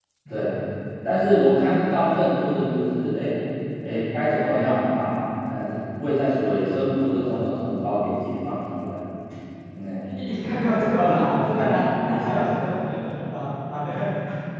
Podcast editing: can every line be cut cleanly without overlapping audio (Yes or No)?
No